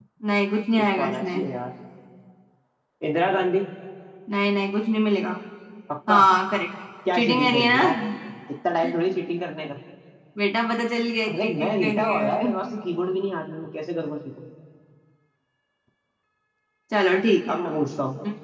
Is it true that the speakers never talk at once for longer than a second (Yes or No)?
No